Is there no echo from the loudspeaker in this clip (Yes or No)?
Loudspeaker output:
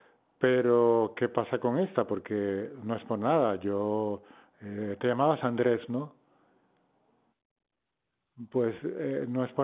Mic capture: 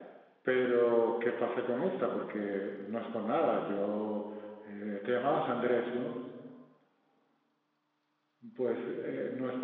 No